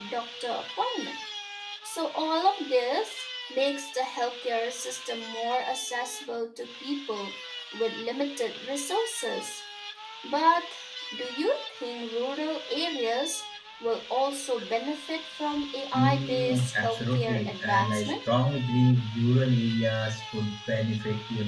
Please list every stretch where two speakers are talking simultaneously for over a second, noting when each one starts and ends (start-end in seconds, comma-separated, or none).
15.9-18.1